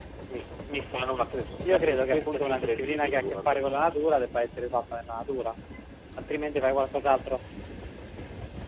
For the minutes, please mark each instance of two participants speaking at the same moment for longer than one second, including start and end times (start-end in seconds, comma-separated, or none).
1.6-4.2